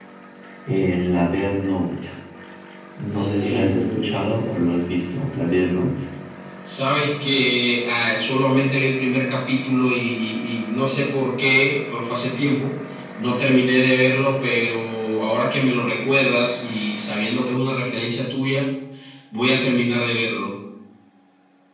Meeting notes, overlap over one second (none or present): present